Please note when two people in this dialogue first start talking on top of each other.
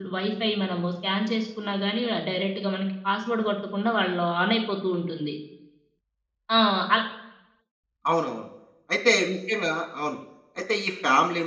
none

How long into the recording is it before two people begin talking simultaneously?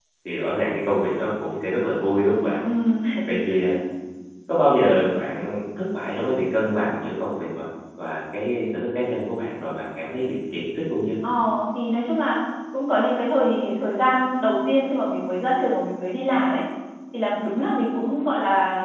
none

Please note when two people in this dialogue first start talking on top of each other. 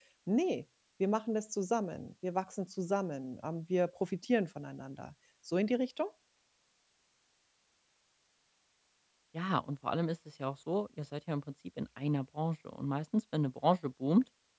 none

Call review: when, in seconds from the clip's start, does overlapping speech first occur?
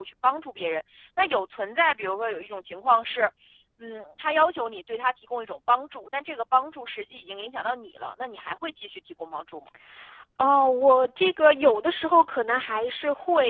none

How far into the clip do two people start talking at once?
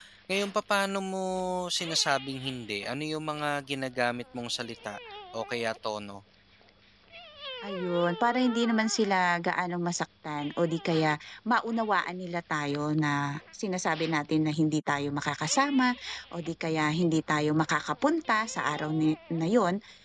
none

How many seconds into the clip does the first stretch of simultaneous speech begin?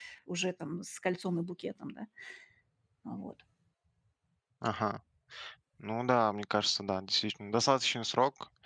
none

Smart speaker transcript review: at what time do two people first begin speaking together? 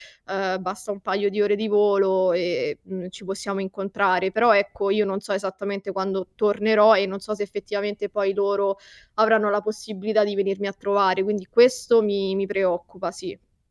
none

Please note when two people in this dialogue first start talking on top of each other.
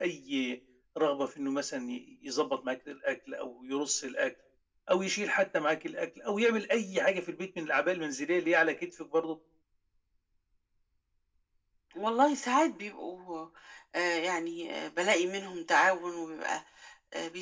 none

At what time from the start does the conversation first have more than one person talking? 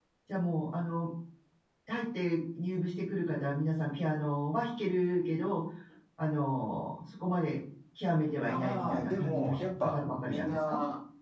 8 s

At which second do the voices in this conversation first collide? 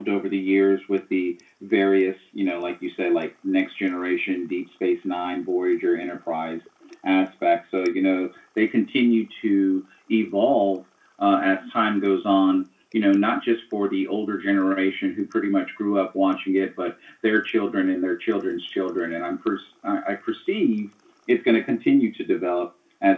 none

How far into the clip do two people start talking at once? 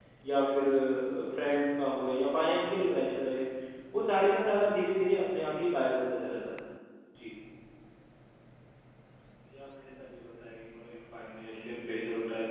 none

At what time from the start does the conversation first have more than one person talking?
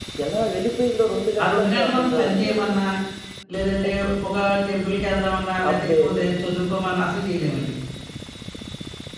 1 s

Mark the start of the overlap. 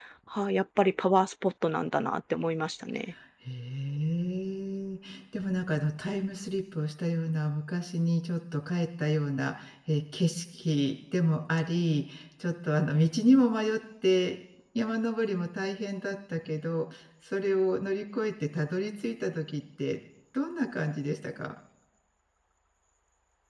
none

